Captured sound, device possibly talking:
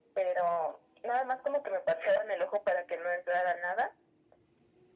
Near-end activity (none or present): none